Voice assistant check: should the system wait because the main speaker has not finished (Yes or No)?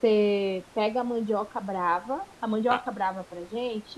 Yes